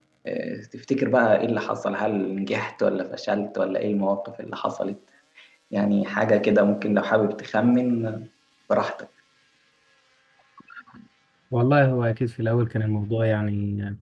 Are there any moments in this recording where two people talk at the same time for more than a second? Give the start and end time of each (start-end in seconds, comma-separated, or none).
none